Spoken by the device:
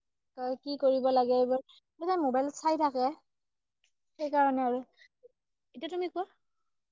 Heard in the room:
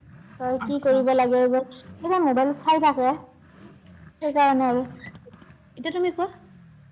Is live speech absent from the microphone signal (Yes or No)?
No